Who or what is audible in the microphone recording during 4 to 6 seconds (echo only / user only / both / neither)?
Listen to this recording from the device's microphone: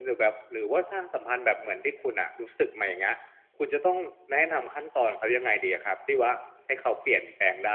user only